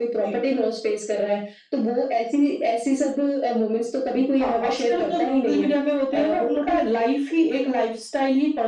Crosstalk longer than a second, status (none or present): present